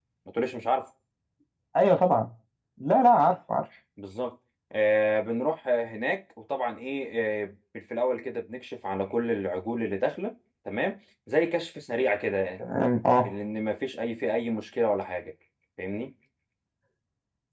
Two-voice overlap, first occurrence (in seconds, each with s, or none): none